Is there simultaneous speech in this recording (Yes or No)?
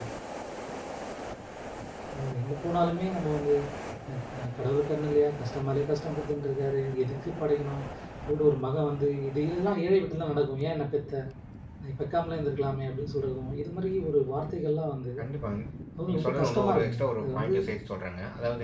Yes